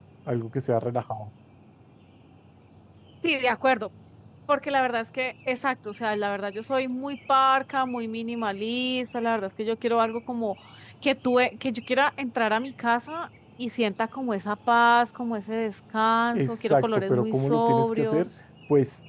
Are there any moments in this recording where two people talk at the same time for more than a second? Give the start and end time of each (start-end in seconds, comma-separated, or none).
16.3-18.3